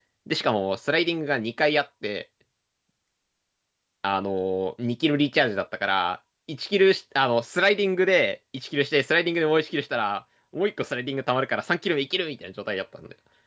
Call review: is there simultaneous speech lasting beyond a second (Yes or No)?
No